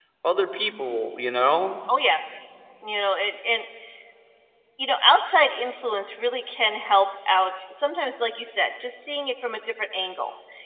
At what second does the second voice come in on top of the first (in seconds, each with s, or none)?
none